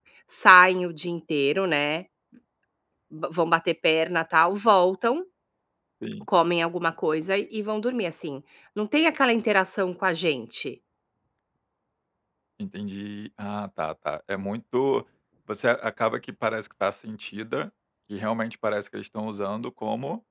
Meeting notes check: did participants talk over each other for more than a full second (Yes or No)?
No